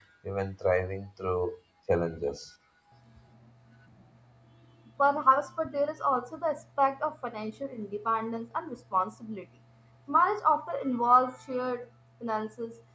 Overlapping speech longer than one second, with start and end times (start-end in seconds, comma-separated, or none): none